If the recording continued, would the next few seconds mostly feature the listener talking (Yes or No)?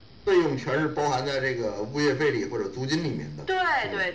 Yes